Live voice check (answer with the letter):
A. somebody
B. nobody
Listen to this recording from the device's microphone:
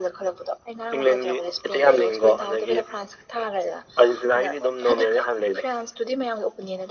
B